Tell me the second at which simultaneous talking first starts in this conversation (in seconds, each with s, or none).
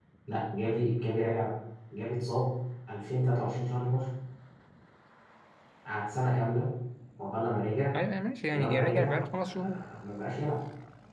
8.5 s